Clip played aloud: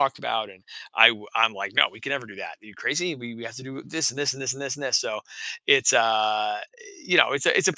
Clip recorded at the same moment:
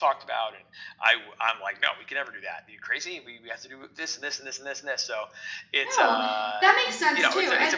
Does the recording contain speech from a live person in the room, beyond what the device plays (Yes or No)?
Yes